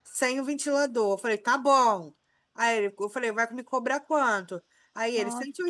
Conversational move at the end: listening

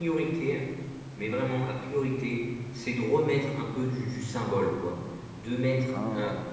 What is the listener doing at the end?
listening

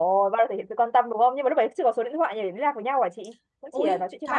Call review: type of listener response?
taking over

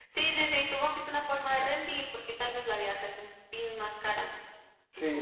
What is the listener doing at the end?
taking over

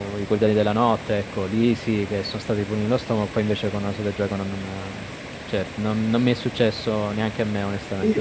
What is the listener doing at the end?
taking over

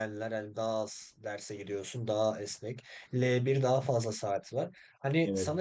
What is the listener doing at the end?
listening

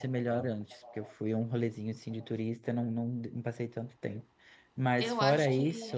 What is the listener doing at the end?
taking over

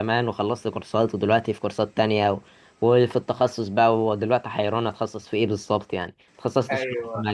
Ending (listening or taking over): listening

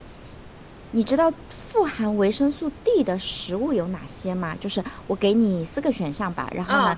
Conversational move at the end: listening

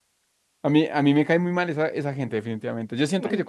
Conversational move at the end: listening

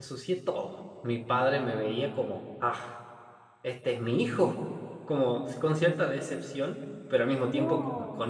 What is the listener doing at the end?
listening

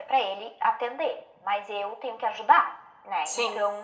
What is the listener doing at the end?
listening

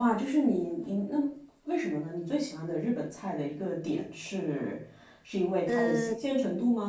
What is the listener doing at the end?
listening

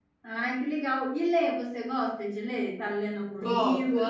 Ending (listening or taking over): taking over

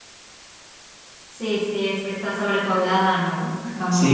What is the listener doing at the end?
taking over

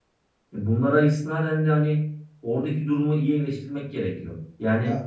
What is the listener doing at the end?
listening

